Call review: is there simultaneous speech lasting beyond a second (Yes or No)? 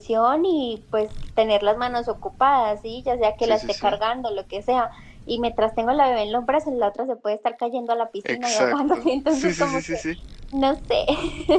Yes